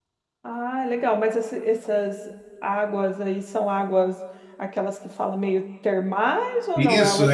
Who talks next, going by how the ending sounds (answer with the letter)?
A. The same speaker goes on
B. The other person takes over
B